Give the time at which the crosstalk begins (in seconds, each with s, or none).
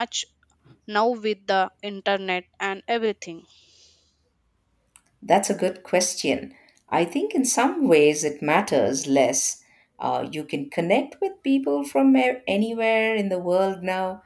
none